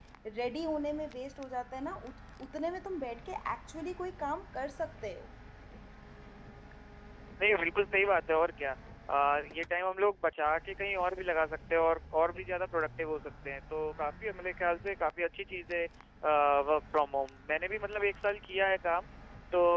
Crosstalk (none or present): none